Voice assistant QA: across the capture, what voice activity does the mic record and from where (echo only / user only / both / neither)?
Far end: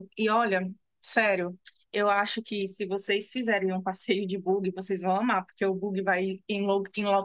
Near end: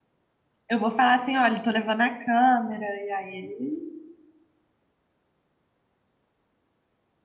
user only